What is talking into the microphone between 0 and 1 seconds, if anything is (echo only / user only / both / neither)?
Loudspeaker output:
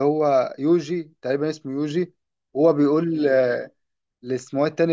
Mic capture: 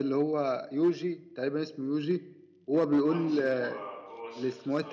echo only